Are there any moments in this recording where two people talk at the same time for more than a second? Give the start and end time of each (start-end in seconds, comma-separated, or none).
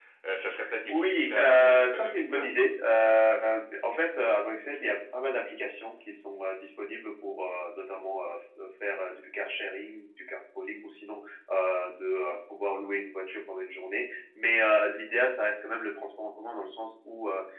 0.8-2.5